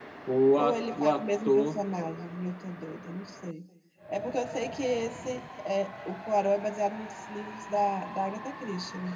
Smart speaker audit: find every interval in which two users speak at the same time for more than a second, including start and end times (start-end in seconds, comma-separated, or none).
0.6-1.8